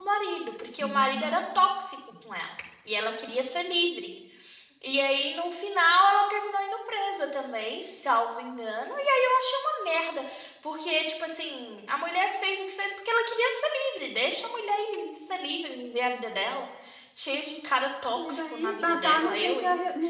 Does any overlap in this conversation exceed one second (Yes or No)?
Yes